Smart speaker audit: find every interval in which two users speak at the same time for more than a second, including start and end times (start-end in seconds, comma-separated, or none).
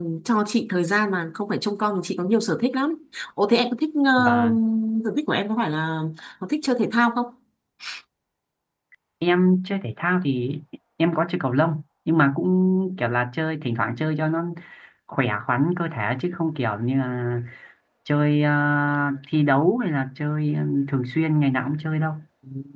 none